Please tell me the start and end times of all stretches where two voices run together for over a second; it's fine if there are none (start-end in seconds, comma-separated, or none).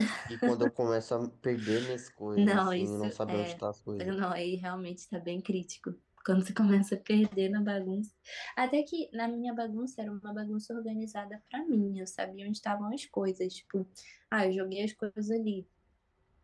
2.4-3.6